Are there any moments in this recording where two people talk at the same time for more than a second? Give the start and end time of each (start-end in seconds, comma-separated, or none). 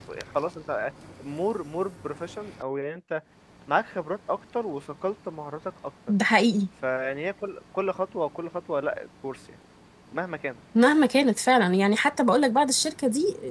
none